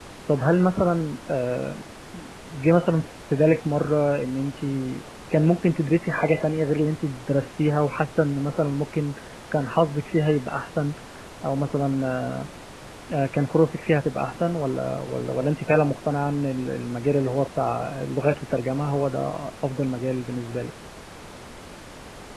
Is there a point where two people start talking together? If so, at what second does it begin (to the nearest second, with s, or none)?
none